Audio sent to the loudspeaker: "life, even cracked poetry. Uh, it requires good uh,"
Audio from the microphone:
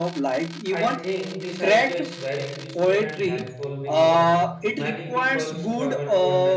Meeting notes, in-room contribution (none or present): present